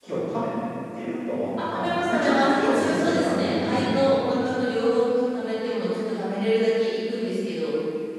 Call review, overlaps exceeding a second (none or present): present